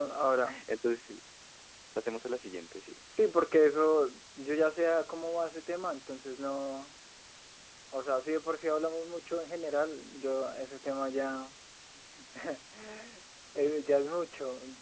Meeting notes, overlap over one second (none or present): none